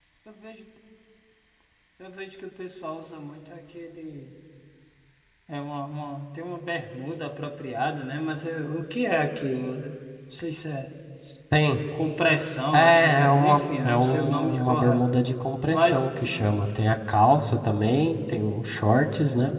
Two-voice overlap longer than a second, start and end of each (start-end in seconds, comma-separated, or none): 12.7-15.1